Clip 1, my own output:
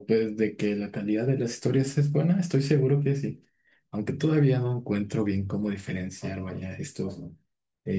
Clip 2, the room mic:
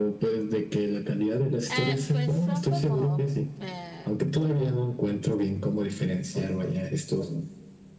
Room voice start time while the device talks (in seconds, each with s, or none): 1.7 s